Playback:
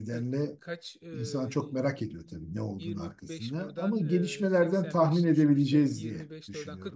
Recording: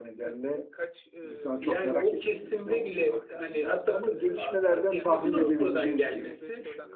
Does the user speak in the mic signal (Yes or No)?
Yes